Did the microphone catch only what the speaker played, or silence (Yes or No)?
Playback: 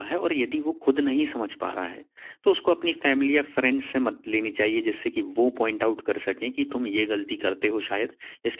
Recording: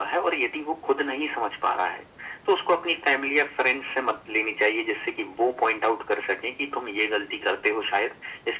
Yes